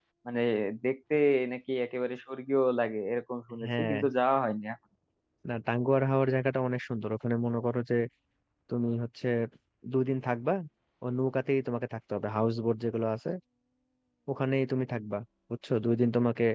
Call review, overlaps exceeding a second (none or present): none